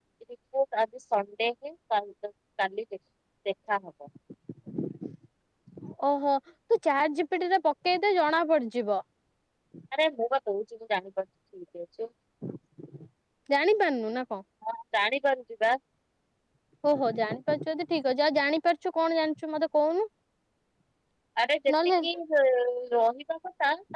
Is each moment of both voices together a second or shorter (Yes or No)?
Yes